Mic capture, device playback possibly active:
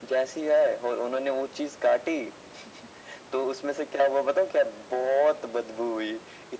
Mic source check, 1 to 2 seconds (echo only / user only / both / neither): echo only